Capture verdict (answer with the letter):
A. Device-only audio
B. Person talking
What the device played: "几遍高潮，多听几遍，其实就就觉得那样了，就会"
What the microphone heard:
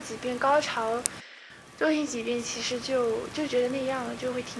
A